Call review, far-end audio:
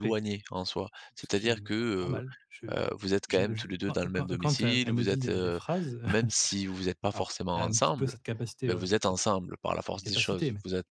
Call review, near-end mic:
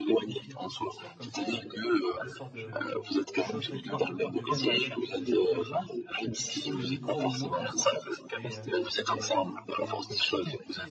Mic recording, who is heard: both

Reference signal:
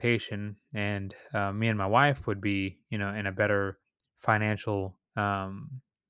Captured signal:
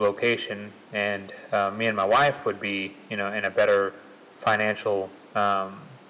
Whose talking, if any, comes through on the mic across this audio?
echo only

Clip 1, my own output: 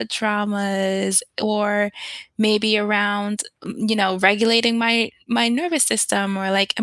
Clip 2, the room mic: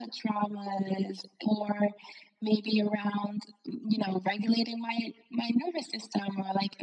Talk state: echo only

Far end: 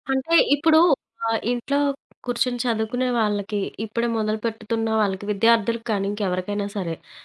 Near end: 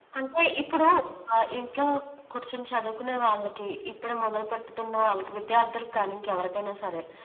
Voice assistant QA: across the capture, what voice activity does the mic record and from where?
echo only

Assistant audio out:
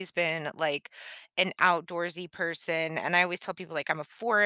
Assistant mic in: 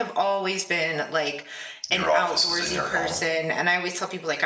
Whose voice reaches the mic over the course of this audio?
both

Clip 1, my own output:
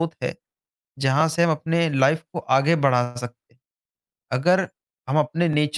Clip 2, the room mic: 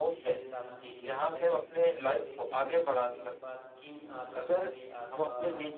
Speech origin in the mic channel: both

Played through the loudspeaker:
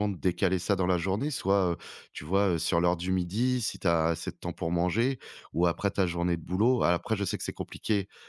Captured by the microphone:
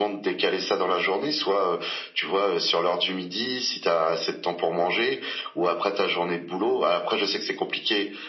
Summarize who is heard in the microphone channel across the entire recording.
echo only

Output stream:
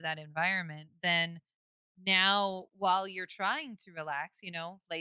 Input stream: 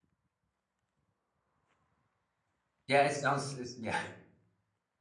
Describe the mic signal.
user only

